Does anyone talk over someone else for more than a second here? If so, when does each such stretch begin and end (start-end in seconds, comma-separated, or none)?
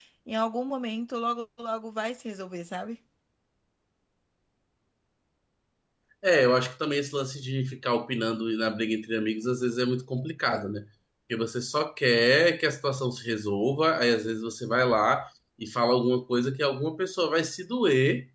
none